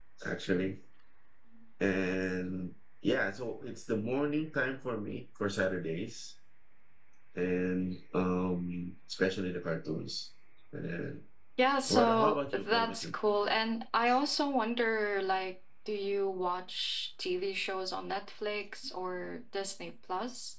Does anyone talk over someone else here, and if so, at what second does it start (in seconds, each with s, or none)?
11.9 s